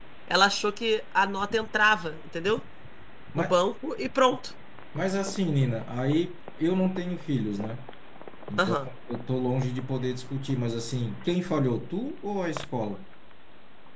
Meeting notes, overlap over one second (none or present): none